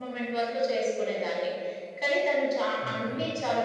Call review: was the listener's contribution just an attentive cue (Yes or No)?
Yes